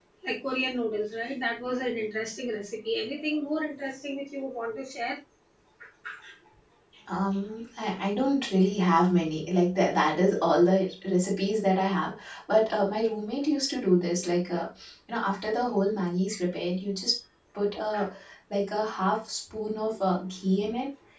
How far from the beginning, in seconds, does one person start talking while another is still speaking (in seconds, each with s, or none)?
none